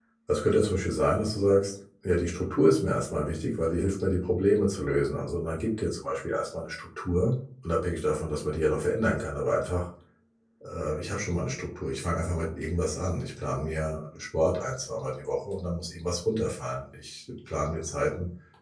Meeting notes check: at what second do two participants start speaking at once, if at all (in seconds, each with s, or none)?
none